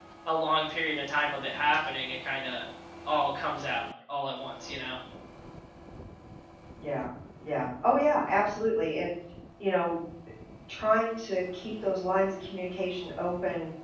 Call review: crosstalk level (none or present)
none